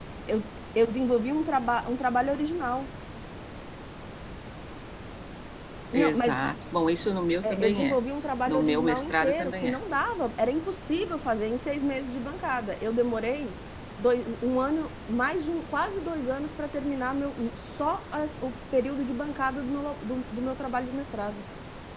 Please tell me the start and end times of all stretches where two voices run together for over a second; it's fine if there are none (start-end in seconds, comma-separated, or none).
8.5-9.8